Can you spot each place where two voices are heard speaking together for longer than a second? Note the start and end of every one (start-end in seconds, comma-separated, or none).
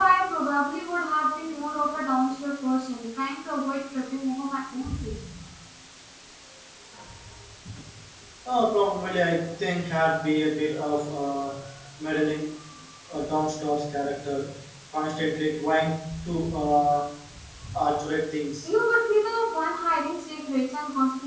none